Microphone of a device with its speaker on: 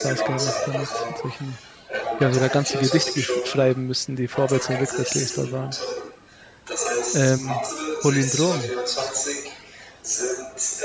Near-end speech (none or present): present